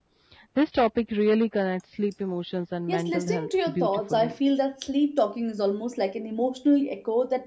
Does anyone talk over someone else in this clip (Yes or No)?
Yes